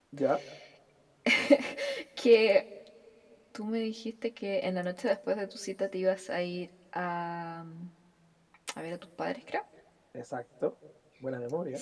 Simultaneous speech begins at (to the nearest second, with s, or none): none